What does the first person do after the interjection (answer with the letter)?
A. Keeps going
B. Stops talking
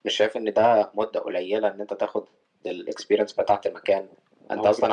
A